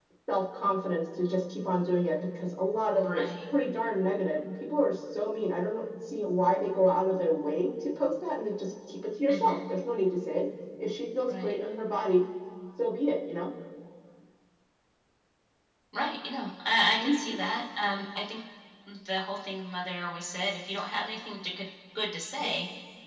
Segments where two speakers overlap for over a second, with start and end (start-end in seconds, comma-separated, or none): none